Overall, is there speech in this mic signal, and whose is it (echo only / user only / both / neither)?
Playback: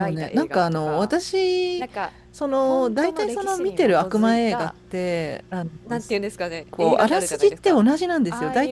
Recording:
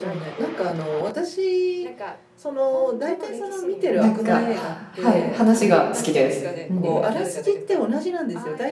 both